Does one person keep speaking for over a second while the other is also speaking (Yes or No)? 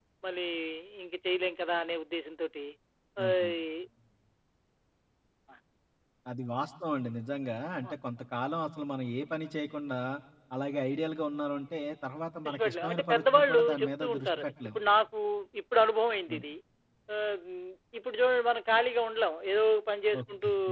Yes